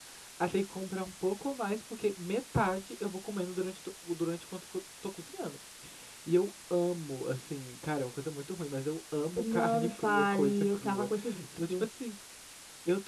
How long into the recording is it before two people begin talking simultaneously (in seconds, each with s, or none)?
9.4 s